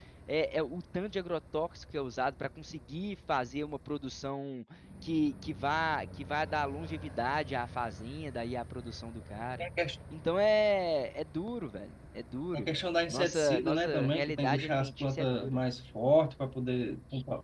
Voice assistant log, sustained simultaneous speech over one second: present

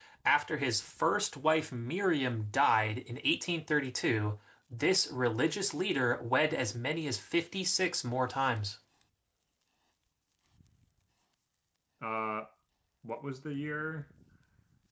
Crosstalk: none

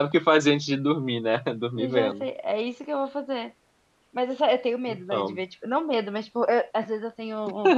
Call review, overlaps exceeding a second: none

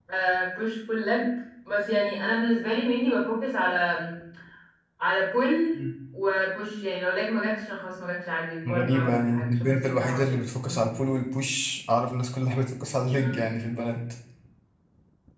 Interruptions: present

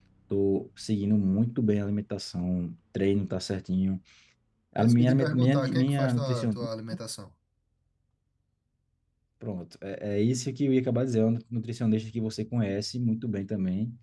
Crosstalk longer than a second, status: present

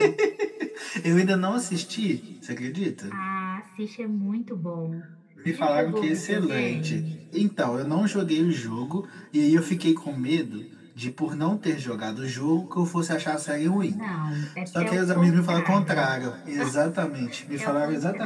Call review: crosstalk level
present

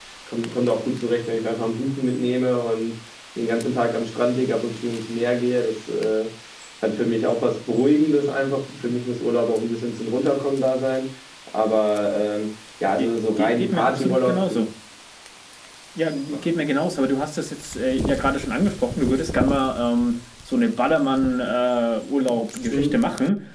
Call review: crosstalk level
present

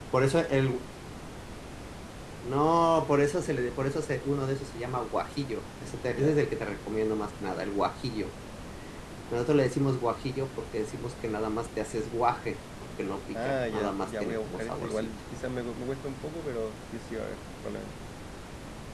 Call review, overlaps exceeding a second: present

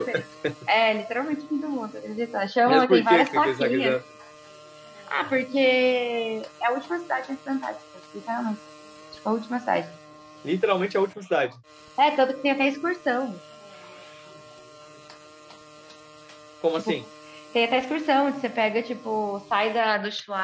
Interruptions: present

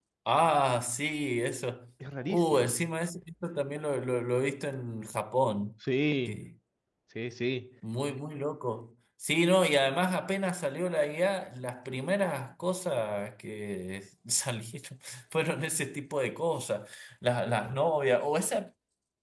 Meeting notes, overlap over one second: none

